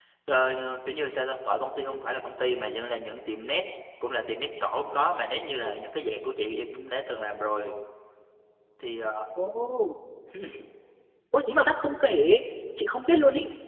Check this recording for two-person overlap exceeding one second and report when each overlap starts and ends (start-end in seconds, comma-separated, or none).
none